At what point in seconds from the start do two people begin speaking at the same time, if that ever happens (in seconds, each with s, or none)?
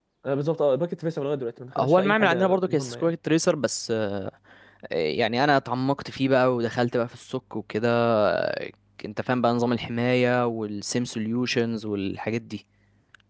1.8 s